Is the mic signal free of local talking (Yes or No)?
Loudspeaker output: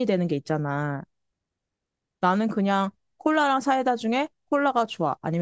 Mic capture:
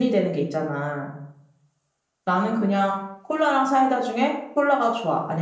Yes